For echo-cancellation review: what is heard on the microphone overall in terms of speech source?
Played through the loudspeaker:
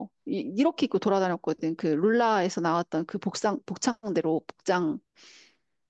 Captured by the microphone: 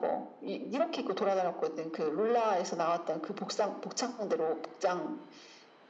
echo only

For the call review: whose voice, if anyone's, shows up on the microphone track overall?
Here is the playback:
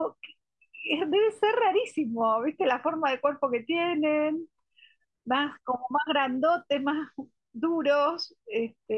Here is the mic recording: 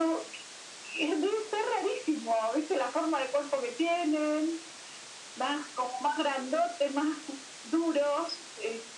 echo only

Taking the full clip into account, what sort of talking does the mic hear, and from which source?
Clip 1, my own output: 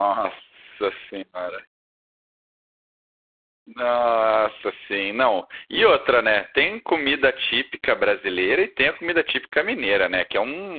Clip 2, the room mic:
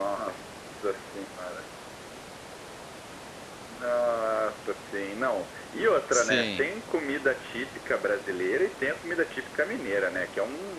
both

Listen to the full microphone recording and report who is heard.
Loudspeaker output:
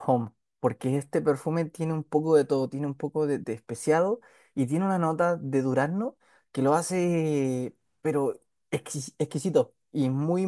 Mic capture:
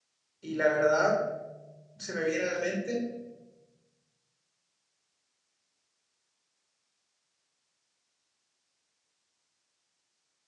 user only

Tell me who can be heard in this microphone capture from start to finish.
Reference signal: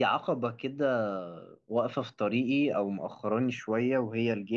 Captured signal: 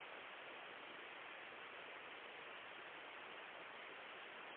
neither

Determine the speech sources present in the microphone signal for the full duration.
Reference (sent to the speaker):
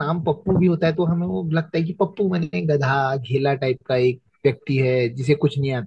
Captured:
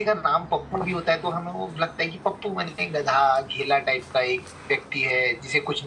echo only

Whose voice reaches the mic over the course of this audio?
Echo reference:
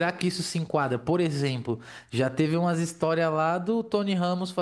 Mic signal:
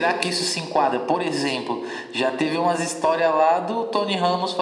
echo only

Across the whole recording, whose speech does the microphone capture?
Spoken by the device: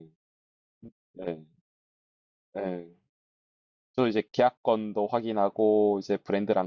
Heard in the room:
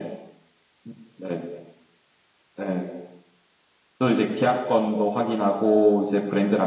echo only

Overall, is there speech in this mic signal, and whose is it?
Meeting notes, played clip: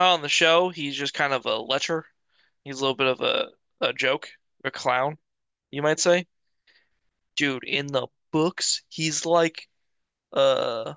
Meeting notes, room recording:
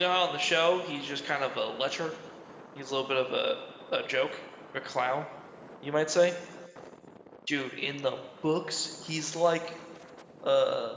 echo only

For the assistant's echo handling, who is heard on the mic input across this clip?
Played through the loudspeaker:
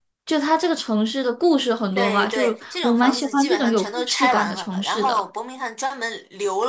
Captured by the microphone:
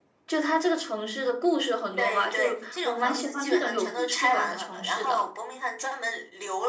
echo only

